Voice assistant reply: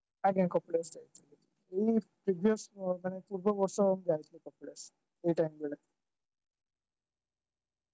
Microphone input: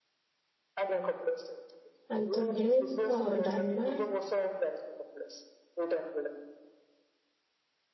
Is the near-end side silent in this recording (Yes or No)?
No